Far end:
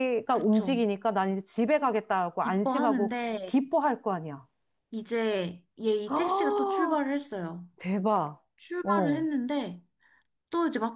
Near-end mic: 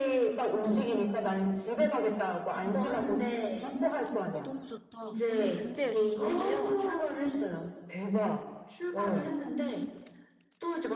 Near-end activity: present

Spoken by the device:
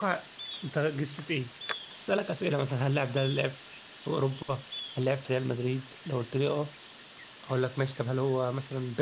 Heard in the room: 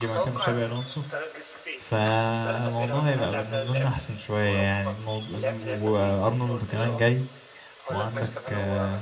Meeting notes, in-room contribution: present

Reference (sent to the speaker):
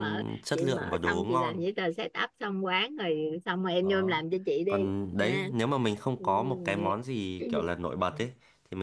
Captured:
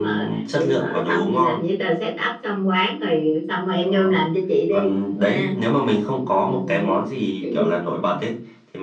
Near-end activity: none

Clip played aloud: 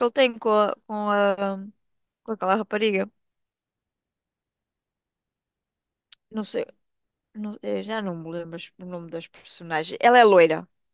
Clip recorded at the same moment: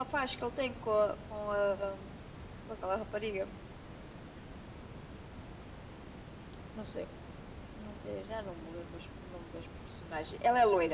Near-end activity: none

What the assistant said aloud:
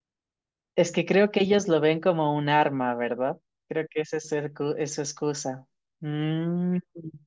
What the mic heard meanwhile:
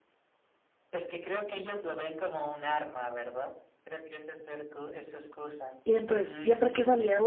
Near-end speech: present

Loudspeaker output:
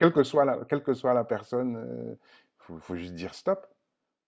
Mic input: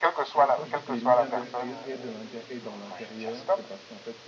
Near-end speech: present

